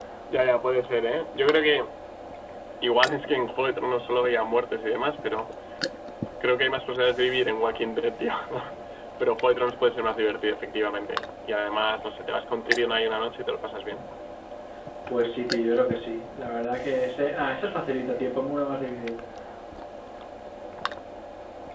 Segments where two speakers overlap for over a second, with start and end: none

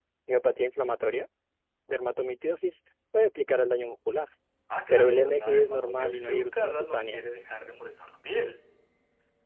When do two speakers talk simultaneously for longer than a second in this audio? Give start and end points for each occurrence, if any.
4.9-7.2

